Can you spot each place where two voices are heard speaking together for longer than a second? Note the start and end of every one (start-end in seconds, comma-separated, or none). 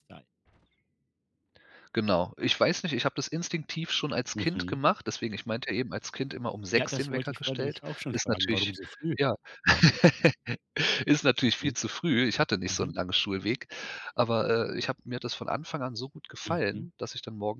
6.8-8.7